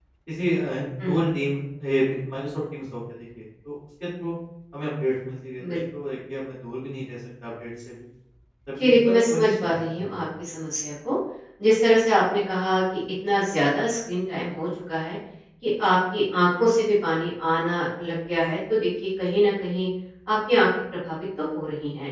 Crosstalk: present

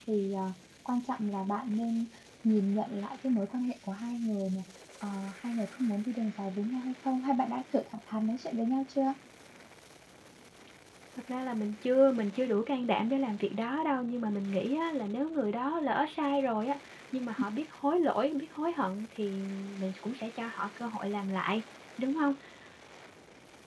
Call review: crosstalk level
none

